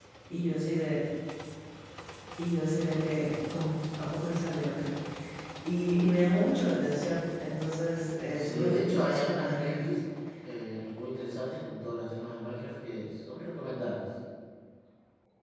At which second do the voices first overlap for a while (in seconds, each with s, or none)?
8.3 s